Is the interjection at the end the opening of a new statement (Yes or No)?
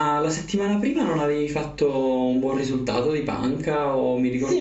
Yes